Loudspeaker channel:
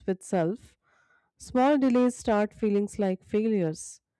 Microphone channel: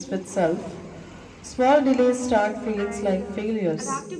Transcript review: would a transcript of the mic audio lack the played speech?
No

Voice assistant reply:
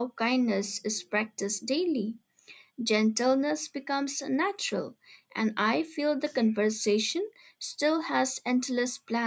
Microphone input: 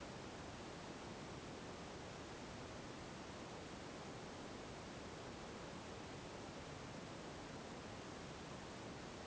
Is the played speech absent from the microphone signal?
Yes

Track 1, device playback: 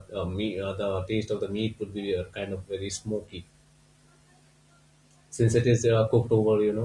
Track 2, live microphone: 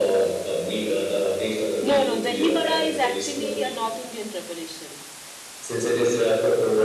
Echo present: Yes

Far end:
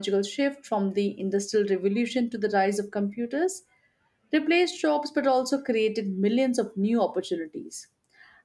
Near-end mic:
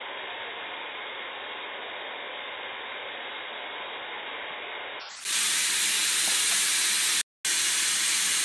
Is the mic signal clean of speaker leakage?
Yes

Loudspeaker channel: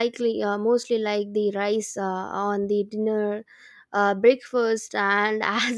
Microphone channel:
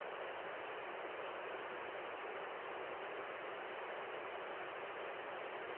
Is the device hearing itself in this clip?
No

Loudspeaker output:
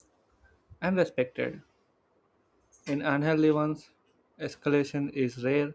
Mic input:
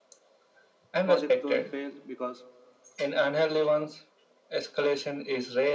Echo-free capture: No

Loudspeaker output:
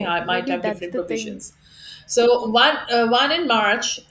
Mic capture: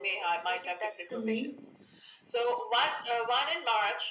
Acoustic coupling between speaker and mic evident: Yes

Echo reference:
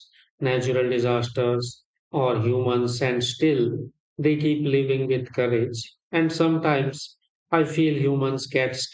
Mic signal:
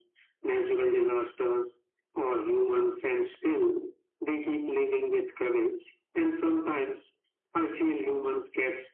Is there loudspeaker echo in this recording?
Yes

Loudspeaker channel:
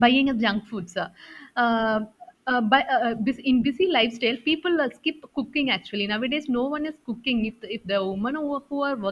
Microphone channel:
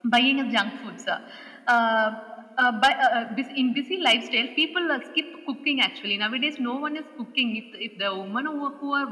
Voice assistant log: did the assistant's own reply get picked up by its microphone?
Yes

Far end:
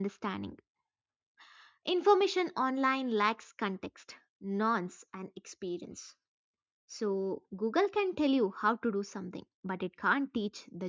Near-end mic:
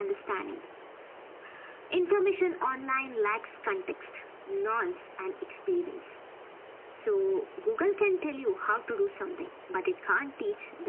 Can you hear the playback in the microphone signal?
Yes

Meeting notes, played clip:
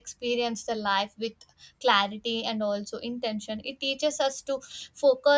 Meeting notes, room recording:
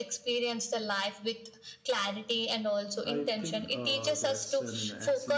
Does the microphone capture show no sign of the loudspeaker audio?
No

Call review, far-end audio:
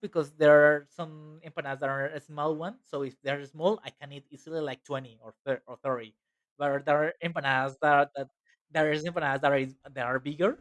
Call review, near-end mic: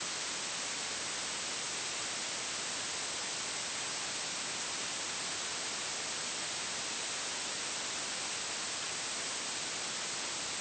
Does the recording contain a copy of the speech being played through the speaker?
No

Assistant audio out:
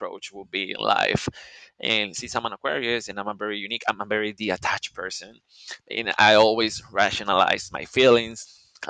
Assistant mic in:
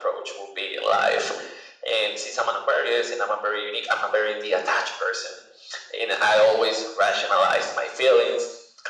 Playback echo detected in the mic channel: Yes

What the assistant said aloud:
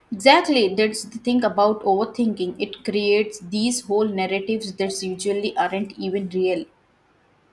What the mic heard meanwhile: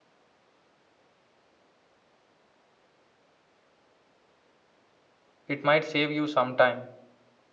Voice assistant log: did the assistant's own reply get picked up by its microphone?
No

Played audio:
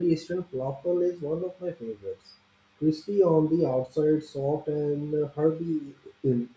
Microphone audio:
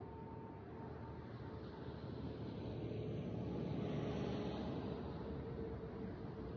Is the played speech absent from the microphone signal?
Yes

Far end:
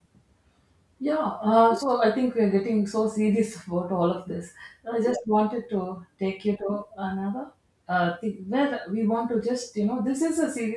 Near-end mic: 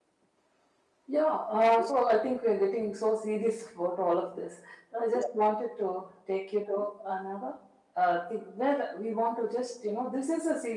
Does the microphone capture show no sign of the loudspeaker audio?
No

